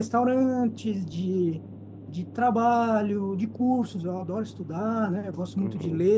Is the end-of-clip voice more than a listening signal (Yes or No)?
No